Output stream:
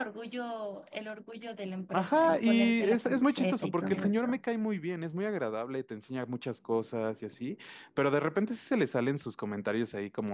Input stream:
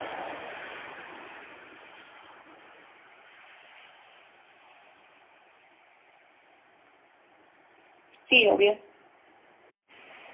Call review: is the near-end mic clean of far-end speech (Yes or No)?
Yes